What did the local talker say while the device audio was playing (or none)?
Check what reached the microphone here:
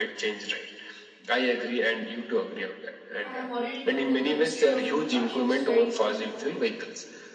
i have already told you the history of you know battery which is very important to know